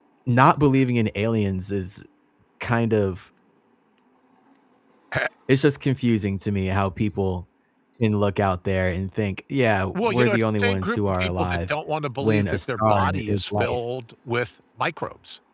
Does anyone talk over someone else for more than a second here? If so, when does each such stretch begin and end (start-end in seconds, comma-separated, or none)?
9.9-11.7, 12.2-13.8